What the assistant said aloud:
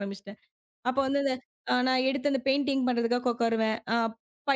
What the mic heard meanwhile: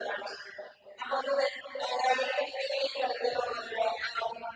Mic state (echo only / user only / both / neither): echo only